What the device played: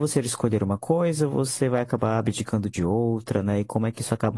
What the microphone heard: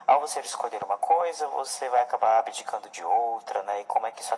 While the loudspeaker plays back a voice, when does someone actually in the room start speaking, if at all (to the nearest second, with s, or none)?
none